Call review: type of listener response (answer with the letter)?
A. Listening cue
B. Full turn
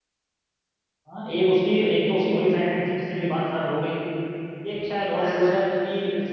A